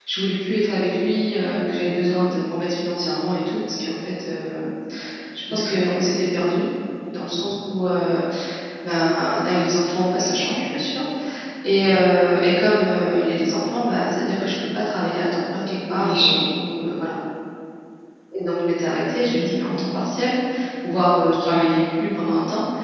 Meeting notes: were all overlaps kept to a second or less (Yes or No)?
Yes